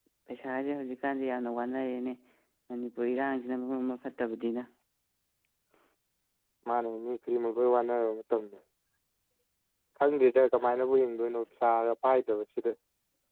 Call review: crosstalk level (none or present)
none